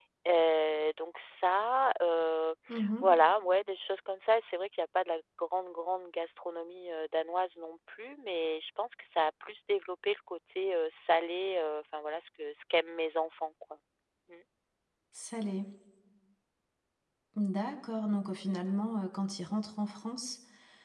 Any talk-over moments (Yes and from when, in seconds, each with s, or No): No